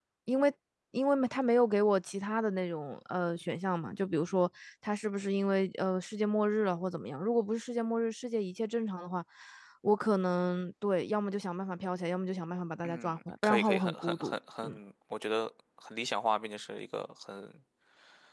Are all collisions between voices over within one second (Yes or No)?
No